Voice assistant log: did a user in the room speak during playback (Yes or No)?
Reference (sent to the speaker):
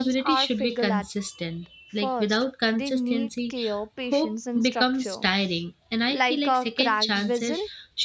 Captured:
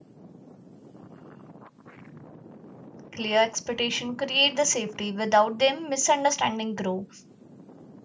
Yes